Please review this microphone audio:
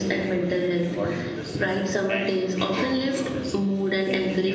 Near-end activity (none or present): none